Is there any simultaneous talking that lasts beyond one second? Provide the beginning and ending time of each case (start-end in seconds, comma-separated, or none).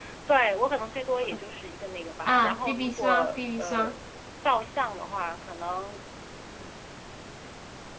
2.3-3.9